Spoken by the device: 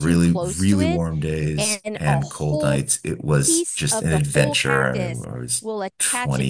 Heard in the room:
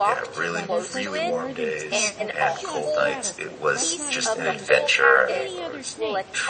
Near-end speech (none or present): present